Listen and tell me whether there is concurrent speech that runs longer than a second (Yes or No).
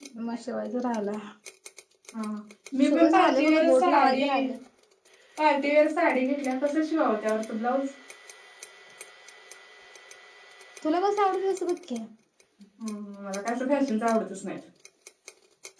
Yes